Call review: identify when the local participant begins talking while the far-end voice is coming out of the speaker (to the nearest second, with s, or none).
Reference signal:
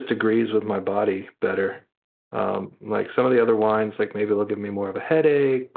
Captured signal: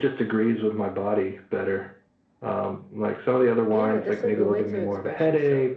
4 s